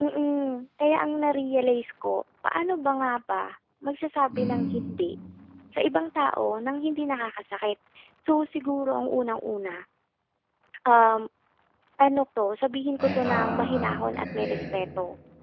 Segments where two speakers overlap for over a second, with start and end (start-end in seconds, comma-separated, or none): 13.0-14.6